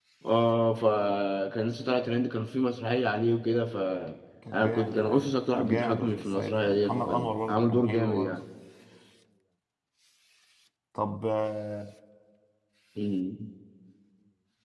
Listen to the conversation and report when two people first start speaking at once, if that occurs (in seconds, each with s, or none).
4.5 s